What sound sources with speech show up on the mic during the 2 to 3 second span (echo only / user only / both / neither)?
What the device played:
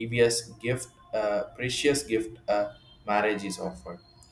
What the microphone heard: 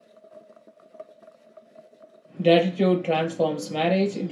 user only